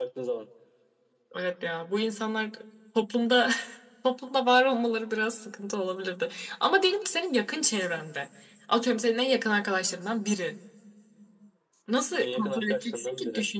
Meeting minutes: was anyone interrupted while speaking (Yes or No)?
Yes